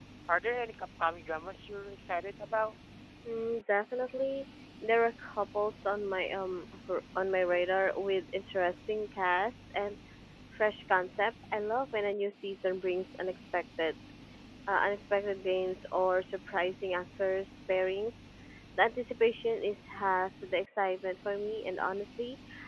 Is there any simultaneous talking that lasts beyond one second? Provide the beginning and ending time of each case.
none

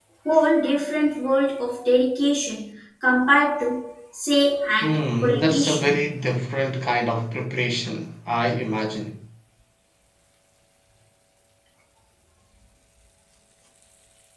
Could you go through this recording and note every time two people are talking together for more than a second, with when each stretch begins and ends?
4.8-6.1

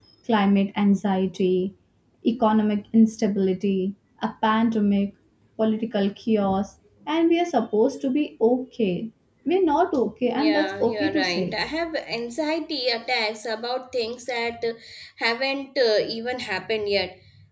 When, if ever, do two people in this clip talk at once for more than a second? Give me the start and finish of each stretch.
10.2-11.6

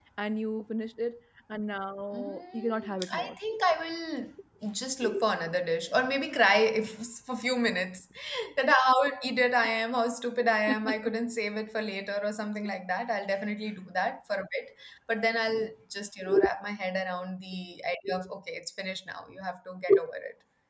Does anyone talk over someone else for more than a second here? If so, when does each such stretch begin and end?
2.1-3.4

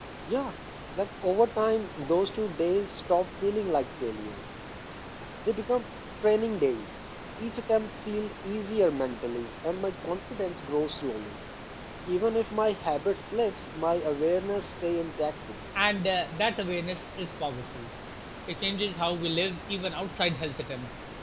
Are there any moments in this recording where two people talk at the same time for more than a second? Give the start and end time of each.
none

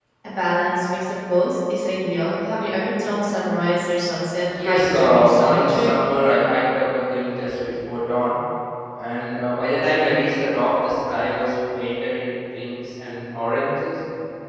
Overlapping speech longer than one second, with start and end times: 4.6-5.9

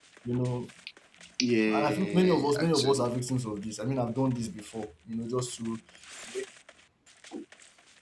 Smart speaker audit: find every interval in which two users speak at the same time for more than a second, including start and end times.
1.7-3.1

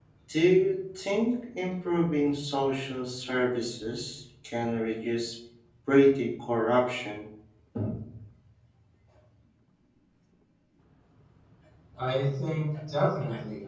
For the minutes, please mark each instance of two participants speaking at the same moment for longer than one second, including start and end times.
none

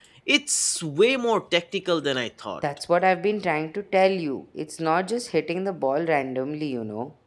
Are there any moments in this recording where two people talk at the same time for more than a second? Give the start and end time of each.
none

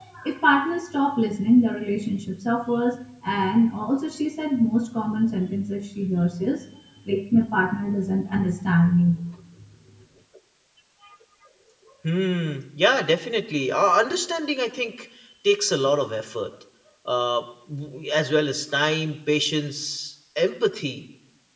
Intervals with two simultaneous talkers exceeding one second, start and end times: none

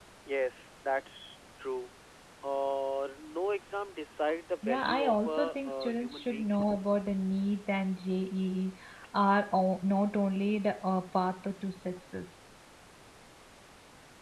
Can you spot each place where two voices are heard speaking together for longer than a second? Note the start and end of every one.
4.7-6.5

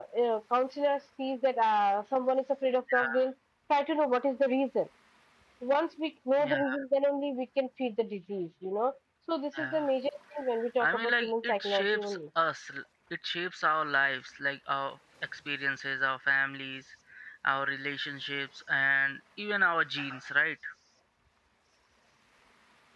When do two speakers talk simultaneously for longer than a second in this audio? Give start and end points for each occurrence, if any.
10.8-12.2

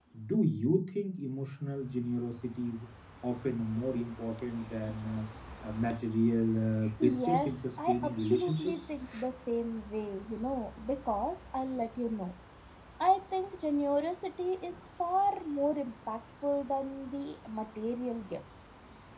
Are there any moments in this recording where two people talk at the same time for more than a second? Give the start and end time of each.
7.0-8.8

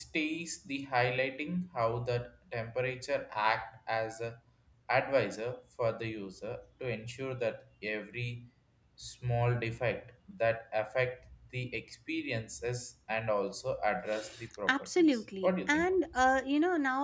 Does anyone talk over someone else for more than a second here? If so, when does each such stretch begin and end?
14.7-16.3

